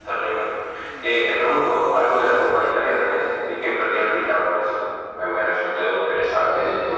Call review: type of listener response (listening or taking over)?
taking over